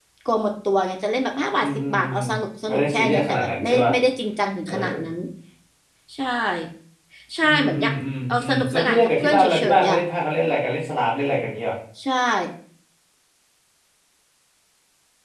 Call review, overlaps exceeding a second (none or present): present